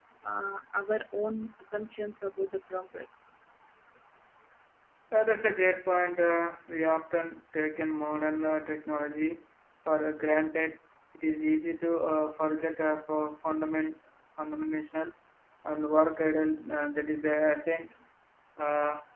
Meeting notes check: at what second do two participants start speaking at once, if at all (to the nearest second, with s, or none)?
none